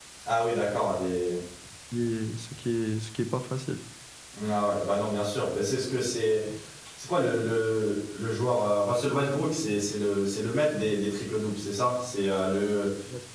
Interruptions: none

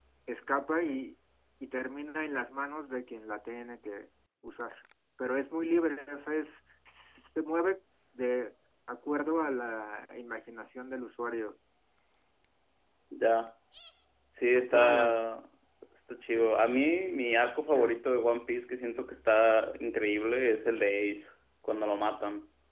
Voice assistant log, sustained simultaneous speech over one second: none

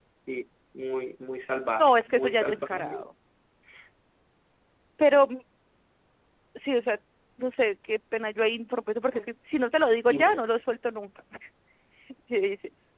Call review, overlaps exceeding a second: present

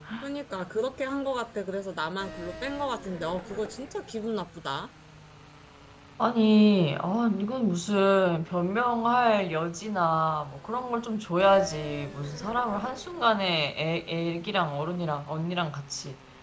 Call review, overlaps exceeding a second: none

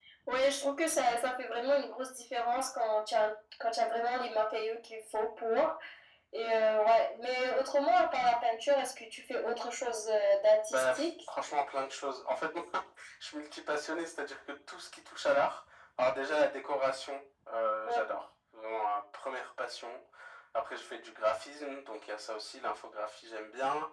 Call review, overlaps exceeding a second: none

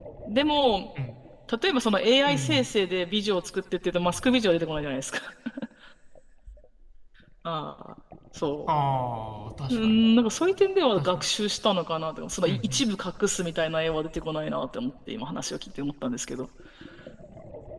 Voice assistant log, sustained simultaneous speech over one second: none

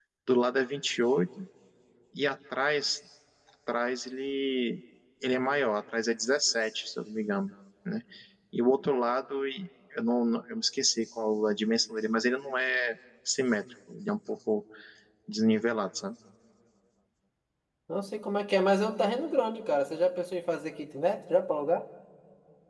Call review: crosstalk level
none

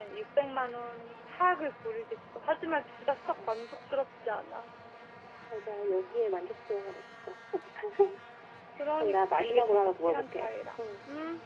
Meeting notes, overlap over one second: present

